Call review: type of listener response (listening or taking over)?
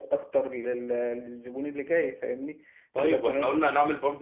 taking over